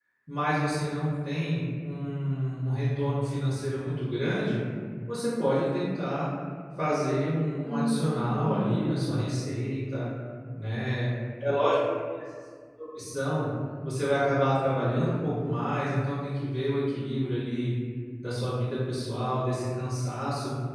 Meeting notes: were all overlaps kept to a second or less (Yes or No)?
No